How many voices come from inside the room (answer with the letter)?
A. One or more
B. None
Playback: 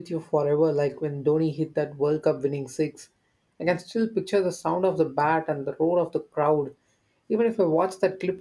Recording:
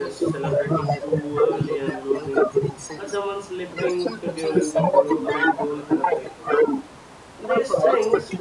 A